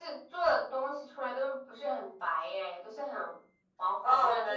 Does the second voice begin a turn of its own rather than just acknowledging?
Yes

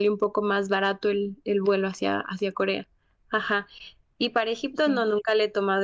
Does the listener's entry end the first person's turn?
No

